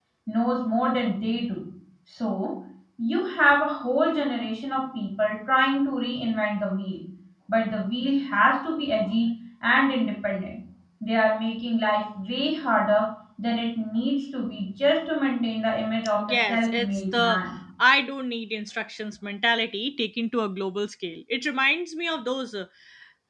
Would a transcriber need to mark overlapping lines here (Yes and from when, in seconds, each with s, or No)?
Yes, from 16.2 s